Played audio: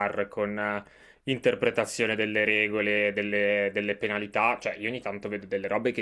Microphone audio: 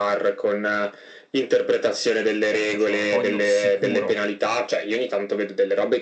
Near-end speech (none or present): present